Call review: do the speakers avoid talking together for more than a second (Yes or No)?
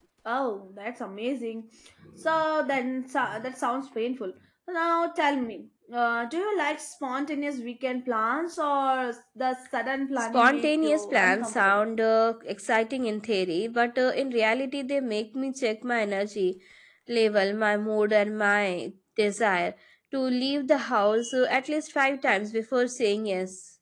No